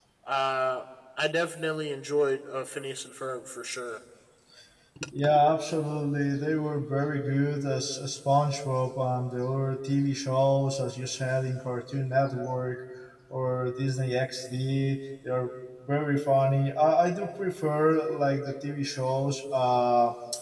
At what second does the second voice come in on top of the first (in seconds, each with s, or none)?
none